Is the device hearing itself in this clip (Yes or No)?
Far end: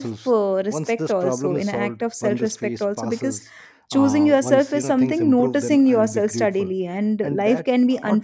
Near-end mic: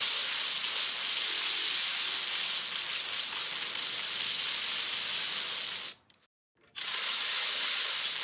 No